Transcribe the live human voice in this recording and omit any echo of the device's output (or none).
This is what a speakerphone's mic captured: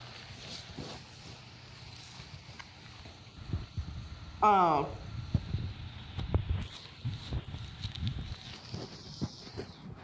Oh